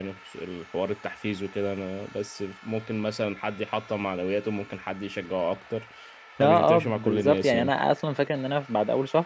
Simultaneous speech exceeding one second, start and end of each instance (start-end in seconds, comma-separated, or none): 6.4-7.7